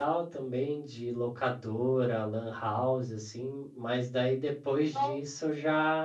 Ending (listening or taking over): listening